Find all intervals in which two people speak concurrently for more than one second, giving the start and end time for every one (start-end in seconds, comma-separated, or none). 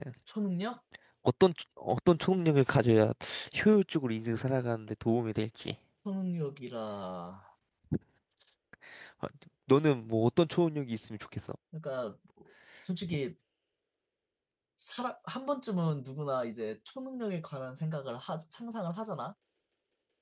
none